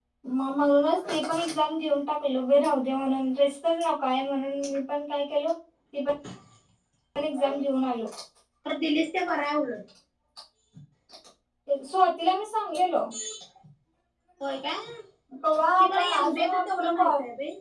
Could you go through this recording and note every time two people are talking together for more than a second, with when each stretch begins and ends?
15.8-17.1

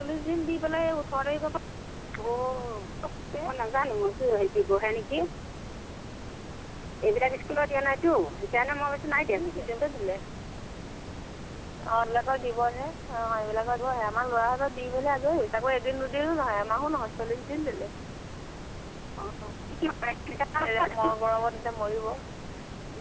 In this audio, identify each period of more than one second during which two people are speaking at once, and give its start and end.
none

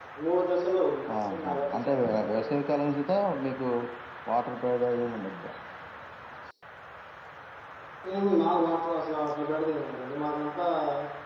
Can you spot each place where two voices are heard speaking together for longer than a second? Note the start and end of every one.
1.2-2.4

